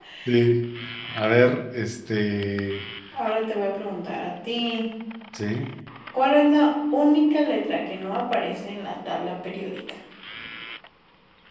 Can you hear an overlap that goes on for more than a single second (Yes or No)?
No